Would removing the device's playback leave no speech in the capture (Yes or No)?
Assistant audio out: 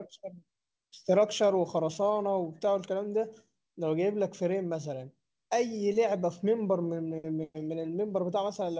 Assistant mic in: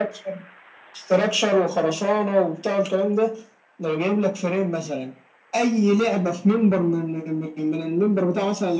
Yes